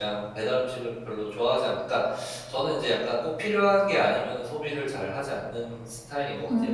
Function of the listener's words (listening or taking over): taking over